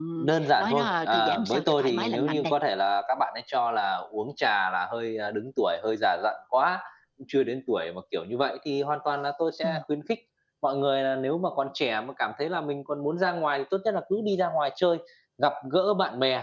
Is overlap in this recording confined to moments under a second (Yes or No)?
No